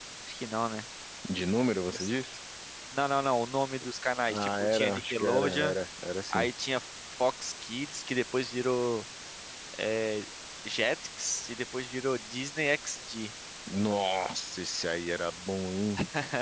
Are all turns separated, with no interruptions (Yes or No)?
No